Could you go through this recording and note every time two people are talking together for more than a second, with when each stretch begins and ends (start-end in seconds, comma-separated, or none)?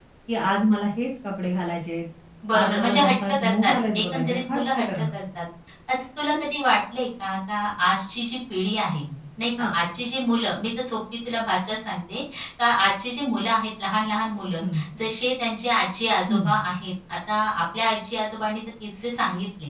2.5-5.0